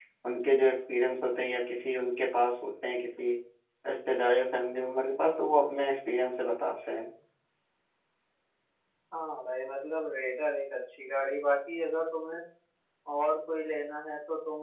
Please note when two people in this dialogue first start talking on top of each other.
none

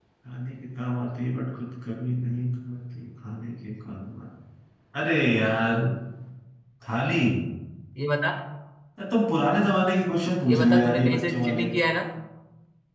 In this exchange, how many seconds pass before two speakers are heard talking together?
10 s

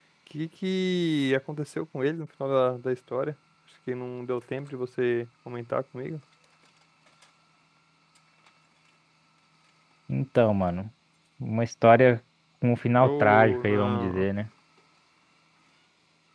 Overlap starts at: 13 s

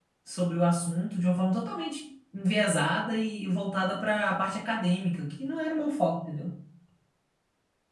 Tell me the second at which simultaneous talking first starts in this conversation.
none

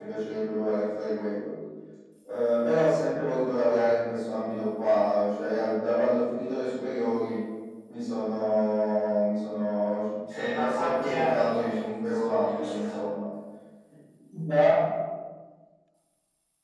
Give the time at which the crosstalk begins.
10 s

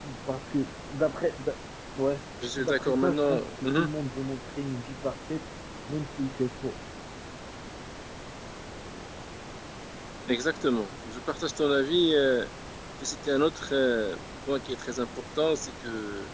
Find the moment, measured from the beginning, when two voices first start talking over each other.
3 s

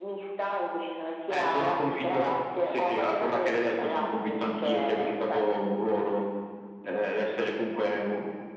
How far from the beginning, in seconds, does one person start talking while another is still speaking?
1 s

